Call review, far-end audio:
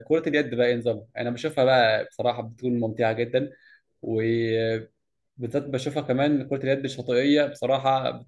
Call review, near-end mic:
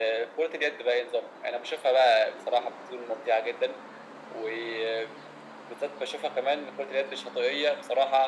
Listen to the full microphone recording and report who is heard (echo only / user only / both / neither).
echo only